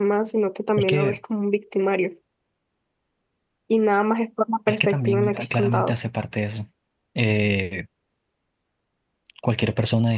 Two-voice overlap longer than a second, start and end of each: 4.7-5.9

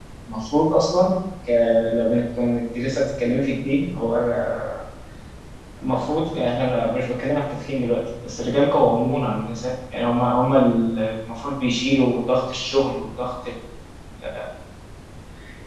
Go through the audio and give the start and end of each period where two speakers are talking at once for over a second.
none

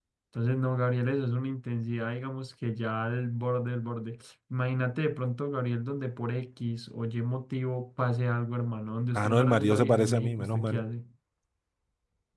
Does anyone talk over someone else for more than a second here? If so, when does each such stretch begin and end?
9.1-10.8

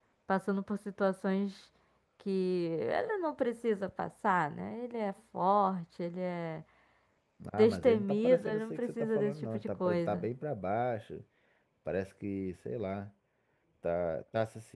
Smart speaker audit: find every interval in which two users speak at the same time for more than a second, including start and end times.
7.6-10.3

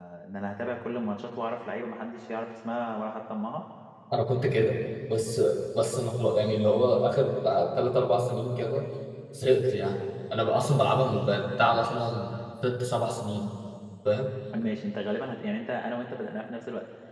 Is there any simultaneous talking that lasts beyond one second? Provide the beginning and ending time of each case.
none

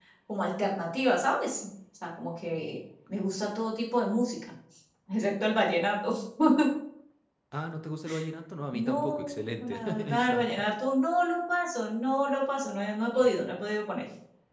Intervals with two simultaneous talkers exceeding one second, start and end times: 8.7-10.5

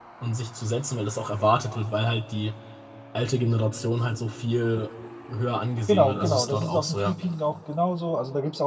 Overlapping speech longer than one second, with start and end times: 5.9-7.1

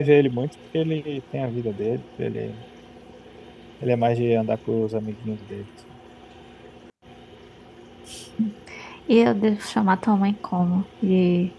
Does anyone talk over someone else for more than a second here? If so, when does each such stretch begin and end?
none

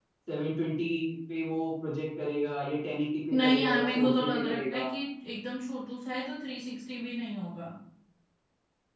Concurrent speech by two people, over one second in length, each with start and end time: 3.3-4.9

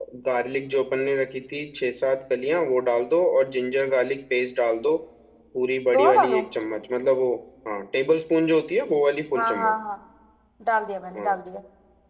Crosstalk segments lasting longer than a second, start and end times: none

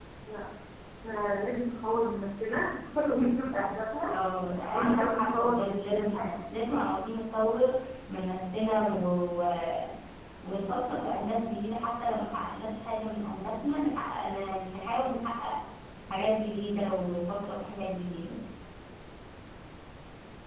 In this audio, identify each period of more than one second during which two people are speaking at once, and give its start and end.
4.7-6.3

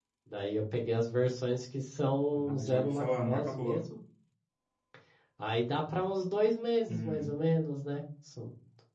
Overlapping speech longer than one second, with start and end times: 2.4-3.8

